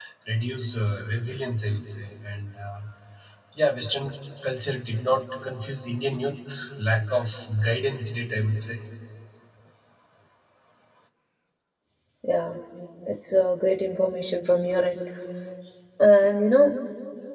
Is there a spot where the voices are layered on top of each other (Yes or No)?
No